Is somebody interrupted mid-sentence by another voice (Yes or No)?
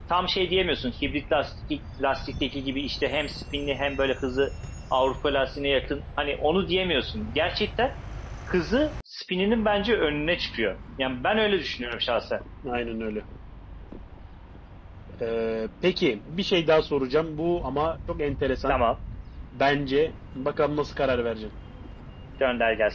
No